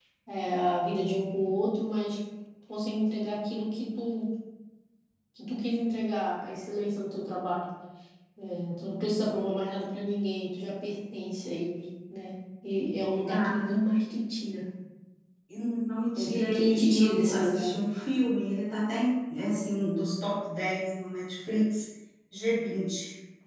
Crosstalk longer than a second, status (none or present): present